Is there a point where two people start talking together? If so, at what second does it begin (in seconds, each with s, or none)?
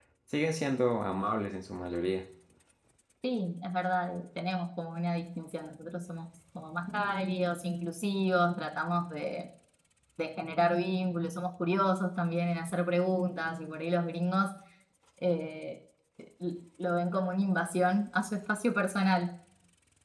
none